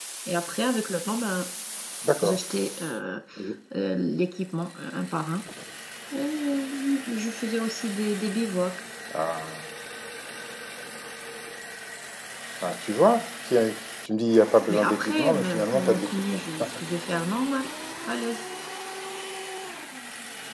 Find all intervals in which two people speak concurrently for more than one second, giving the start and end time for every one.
14.7-16.4

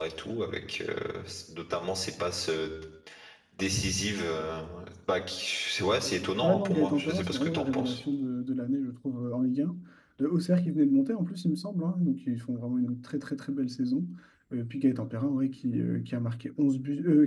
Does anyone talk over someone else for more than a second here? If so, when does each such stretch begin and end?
6.4-8.0

